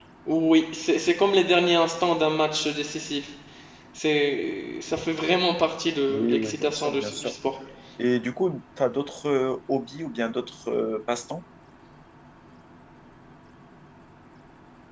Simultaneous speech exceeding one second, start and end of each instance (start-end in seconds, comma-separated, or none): 6.1-7.3